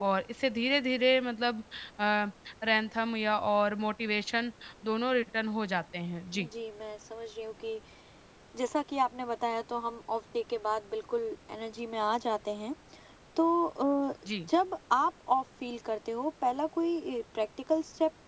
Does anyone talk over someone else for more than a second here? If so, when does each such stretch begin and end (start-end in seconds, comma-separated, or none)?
none